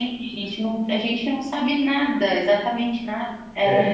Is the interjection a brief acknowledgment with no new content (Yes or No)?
No